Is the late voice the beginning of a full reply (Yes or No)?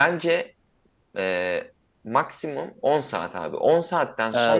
Yes